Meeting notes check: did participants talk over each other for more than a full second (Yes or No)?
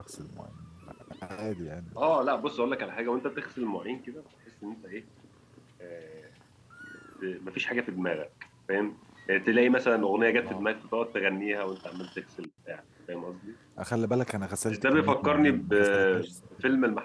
Yes